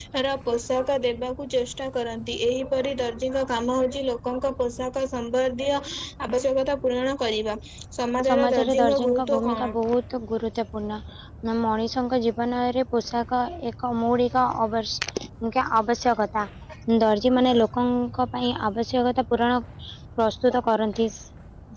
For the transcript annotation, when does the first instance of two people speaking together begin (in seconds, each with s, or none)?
8.3 s